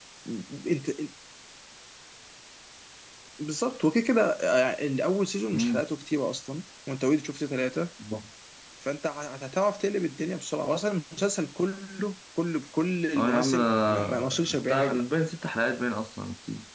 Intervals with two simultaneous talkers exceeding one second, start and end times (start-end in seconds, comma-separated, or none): 13.2-15.0